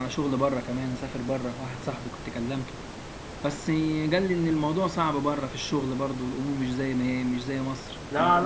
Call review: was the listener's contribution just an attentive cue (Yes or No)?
No